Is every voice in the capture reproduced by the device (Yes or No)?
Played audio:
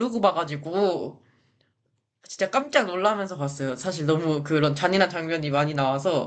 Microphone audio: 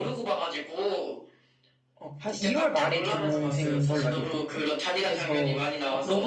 No